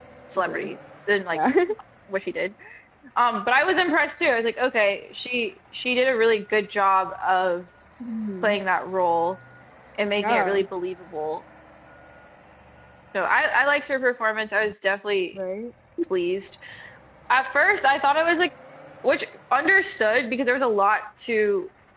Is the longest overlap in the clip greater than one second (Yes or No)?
No